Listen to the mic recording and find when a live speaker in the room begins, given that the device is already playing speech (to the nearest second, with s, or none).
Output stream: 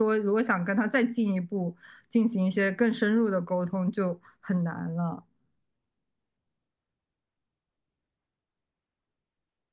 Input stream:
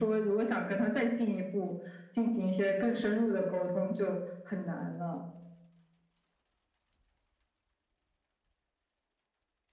none